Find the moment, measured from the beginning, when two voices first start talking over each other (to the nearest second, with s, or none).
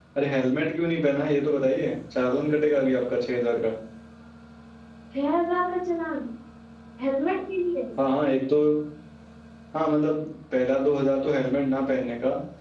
none